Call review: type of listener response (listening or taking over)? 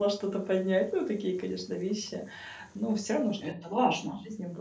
listening